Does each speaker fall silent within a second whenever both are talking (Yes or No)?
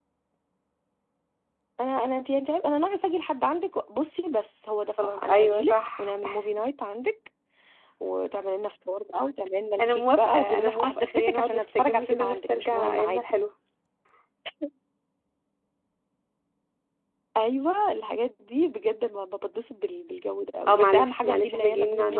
No